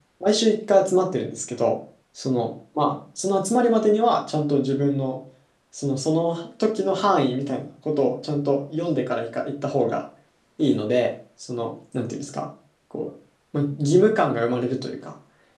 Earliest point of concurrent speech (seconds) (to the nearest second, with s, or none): none